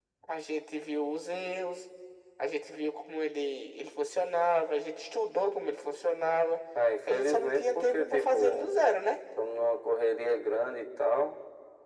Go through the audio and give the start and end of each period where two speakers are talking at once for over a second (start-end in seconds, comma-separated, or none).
7.1-8.7